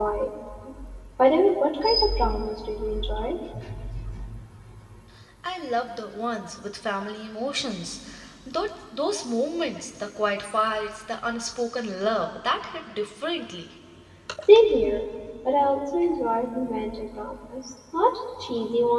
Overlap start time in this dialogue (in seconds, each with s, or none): none